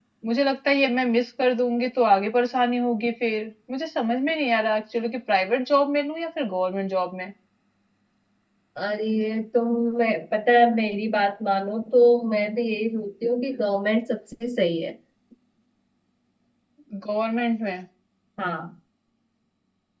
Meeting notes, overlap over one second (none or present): none